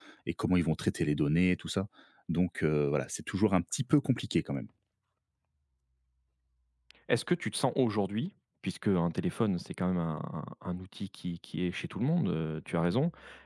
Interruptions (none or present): none